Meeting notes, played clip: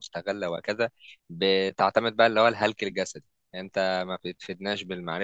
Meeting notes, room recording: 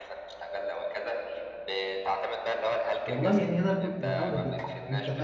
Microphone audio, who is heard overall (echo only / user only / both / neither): both